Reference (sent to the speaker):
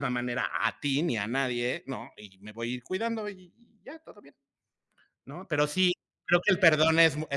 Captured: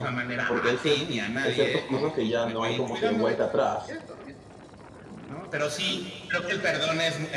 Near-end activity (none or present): present